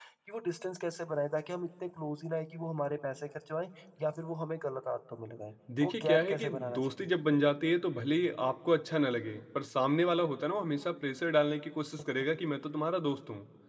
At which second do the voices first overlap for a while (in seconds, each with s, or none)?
5.7 s